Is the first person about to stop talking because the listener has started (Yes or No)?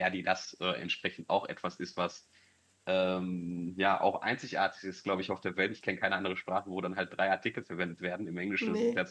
No